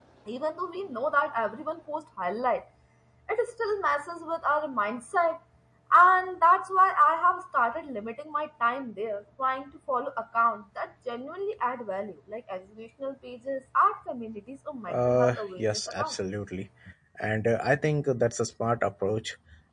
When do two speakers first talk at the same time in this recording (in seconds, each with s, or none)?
14.9 s